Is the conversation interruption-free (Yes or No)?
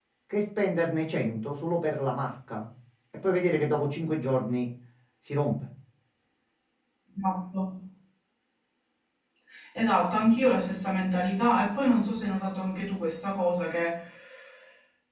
Yes